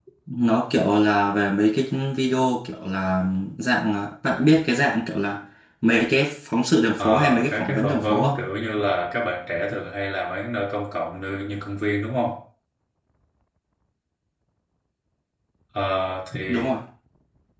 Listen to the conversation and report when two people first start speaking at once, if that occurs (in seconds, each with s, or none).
7.0 s